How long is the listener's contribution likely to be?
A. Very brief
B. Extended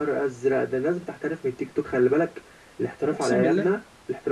A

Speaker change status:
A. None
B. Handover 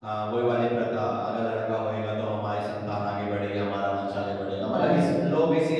A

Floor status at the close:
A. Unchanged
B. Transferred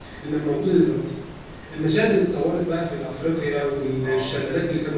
A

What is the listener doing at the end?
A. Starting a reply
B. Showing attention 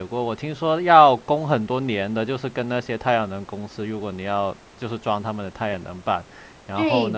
A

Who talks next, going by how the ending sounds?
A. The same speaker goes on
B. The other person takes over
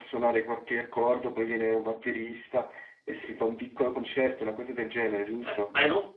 B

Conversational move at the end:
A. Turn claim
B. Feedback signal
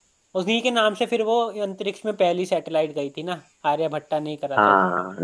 A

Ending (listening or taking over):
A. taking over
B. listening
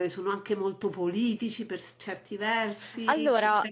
B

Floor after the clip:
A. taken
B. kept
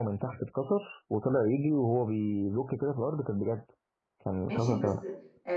A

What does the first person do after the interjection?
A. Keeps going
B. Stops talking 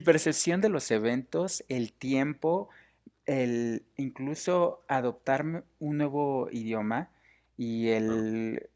A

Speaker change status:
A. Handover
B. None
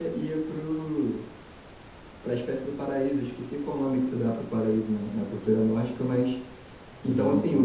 A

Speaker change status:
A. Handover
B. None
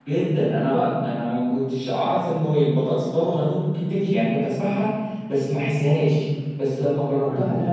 B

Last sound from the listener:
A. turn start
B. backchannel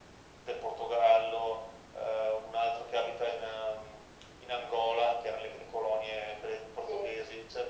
B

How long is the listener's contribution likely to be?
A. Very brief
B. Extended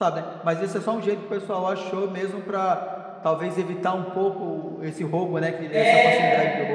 B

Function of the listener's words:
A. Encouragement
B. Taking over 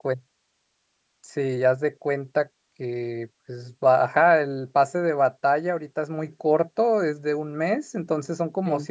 A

